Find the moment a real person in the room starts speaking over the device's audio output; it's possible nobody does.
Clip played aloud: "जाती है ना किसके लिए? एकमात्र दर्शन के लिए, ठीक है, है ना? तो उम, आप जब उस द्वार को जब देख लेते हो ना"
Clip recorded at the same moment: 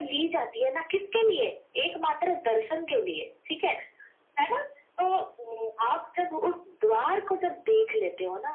none

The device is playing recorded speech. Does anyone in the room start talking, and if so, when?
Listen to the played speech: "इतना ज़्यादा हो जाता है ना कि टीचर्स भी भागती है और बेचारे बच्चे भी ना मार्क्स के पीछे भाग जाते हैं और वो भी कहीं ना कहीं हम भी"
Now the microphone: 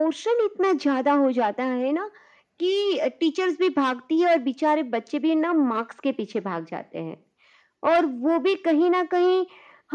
none

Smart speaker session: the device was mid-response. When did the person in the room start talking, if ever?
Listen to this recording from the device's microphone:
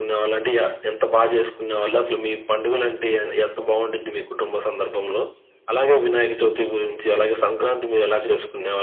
none

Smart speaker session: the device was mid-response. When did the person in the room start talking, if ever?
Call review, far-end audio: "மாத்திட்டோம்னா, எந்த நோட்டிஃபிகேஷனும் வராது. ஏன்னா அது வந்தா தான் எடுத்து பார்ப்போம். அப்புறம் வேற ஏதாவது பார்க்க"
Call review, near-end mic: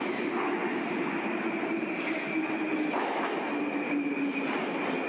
none

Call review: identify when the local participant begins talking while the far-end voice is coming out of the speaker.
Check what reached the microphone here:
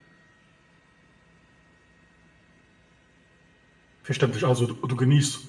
4.0 s

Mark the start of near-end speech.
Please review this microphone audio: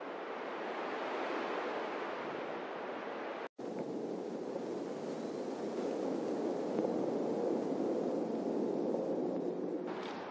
none

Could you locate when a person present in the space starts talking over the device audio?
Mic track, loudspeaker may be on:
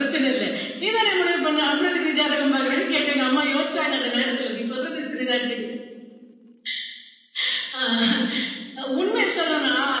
none

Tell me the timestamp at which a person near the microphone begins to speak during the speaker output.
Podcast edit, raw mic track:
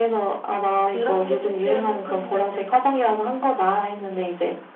0.6 s

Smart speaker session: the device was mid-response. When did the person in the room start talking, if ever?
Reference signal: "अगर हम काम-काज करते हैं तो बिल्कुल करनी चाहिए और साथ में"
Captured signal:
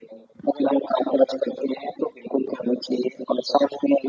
none

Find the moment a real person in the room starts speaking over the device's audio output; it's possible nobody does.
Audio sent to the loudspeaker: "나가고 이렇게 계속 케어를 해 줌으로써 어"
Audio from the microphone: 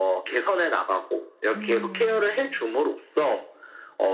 1.6 s

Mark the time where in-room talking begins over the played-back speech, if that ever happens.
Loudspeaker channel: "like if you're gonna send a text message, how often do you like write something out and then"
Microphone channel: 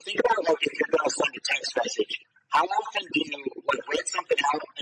none

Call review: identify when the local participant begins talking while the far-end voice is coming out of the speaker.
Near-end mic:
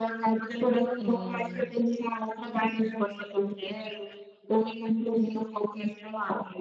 1.0 s

